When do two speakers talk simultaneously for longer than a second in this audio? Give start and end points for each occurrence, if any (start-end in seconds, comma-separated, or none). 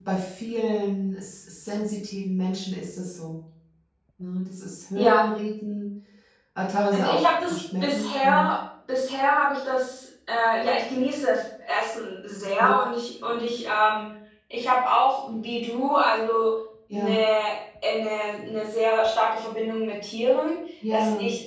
6.9-8.6